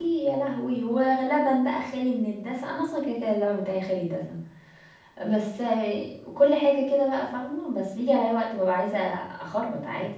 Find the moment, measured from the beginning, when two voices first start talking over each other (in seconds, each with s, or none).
none